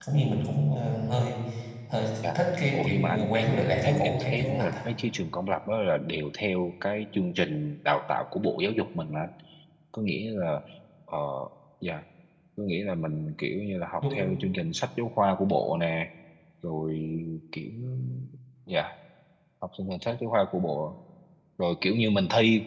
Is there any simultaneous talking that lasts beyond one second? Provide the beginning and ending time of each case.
2.4-4.8

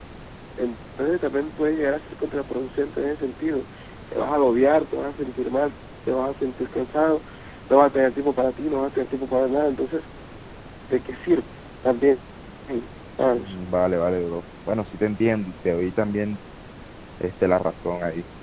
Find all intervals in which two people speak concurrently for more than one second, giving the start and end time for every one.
none

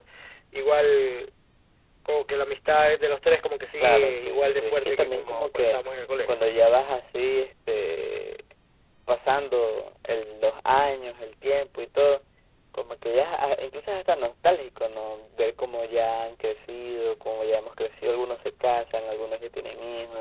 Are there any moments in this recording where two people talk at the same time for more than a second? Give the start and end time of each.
3.8-5.8

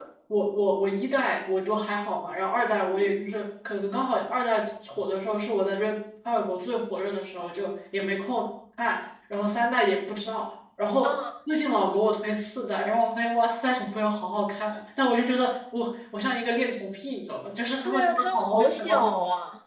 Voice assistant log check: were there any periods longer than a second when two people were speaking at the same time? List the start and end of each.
17.9-19.1

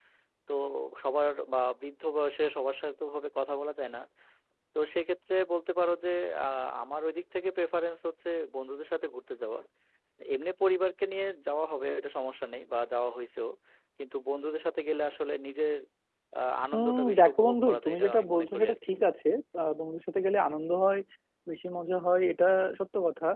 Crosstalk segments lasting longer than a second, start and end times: 16.7-18.9

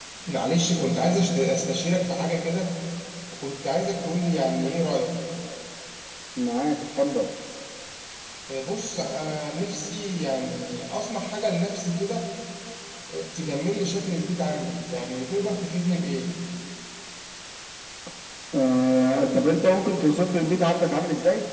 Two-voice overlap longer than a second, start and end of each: none

